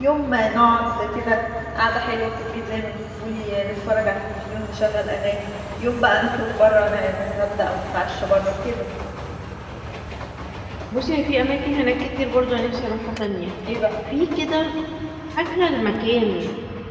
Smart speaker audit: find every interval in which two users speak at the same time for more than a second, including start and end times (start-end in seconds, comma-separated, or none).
none